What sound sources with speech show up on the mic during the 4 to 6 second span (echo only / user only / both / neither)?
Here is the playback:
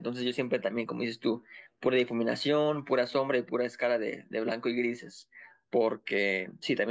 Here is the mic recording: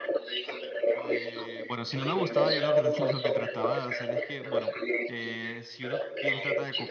both